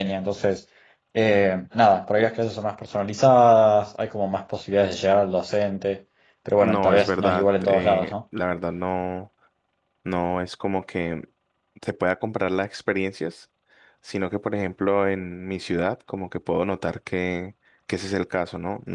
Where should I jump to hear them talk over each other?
7 s

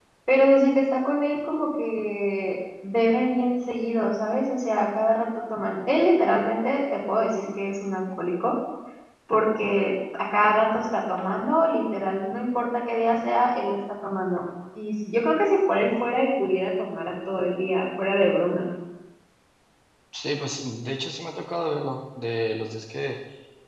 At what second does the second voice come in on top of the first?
none

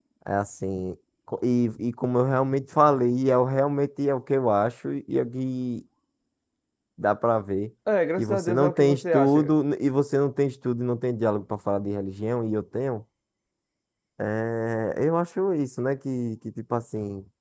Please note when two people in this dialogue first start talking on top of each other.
8 s

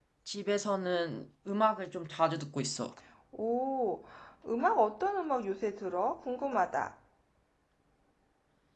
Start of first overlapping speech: none

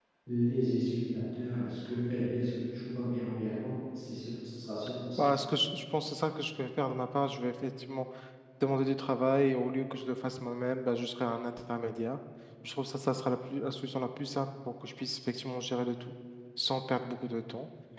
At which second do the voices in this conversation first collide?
none

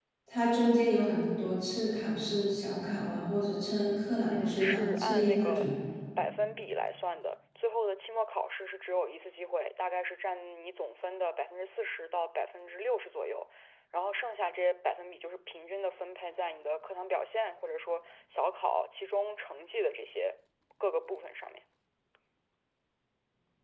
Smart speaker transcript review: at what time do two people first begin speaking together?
4 s

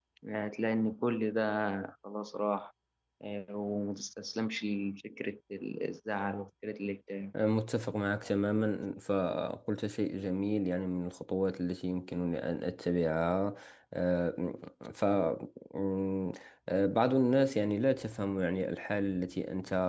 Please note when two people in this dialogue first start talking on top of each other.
none

